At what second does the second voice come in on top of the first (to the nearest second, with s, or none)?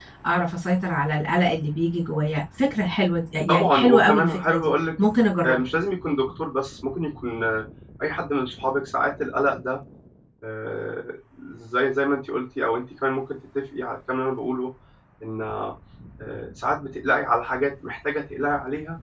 3 s